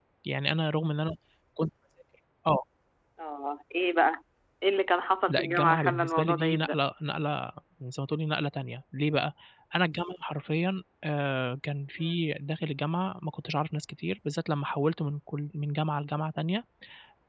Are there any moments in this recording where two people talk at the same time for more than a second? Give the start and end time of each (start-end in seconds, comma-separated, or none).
5.3-6.8